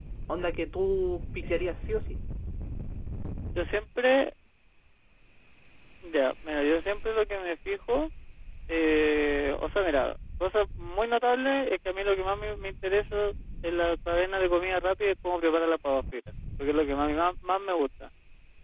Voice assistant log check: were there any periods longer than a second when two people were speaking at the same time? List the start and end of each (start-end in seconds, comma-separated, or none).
none